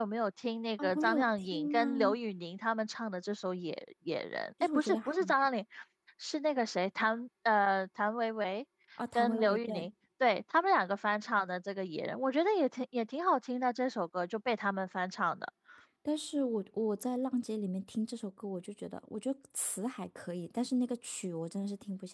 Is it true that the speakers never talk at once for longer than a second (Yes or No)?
No